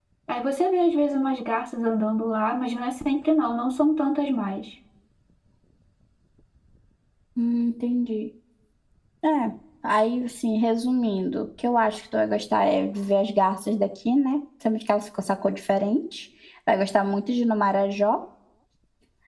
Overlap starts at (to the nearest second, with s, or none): none